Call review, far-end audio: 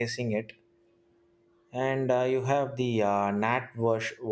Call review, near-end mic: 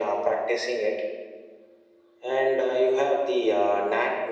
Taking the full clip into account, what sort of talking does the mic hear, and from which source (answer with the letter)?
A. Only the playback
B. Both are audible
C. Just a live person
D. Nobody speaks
A